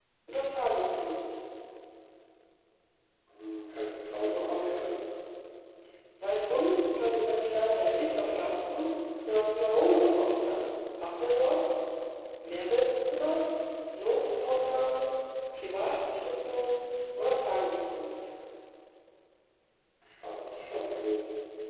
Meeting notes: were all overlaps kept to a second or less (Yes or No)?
Yes